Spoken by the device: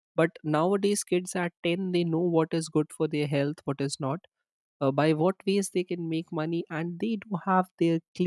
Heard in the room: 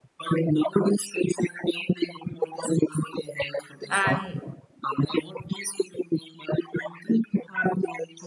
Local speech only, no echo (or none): and